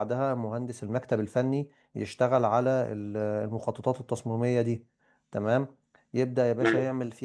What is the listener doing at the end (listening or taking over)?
listening